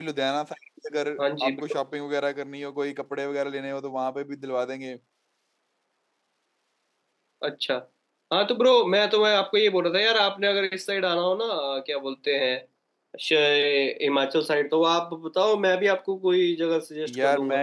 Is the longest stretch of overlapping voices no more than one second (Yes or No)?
Yes